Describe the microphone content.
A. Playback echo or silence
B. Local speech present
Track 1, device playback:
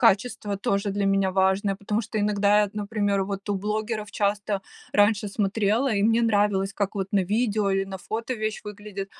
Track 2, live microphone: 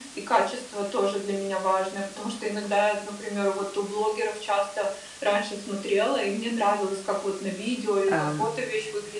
B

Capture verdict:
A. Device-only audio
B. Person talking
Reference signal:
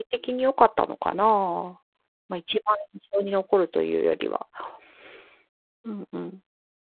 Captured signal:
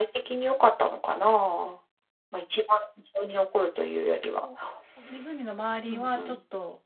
B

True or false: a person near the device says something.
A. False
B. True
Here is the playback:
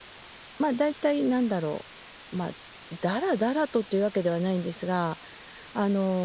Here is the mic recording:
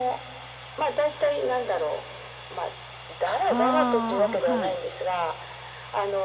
B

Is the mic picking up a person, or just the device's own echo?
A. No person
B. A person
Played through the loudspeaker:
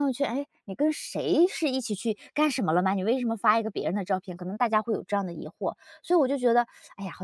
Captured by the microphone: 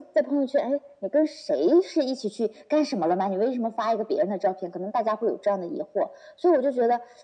A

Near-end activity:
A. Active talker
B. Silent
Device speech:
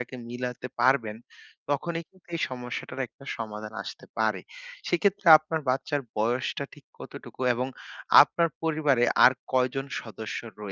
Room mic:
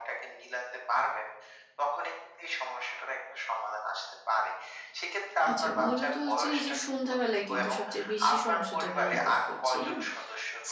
A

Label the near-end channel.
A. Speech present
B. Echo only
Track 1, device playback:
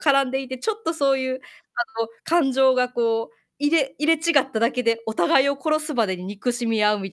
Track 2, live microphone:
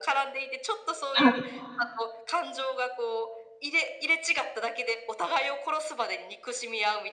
A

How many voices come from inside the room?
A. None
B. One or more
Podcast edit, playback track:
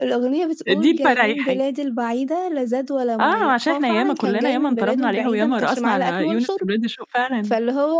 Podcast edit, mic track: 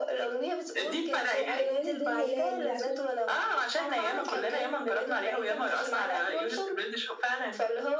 B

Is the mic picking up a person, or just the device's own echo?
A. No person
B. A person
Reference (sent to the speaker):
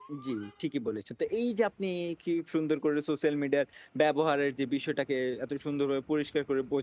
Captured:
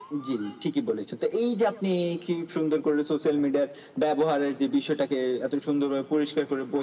A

